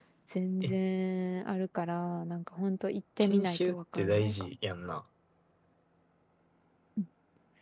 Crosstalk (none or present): present